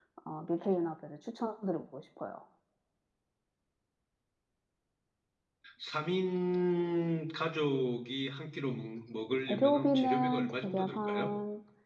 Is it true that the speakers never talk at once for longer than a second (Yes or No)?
No